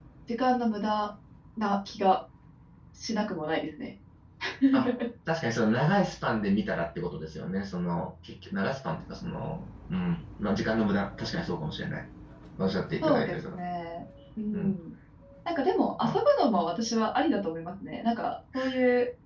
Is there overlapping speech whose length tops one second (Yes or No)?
No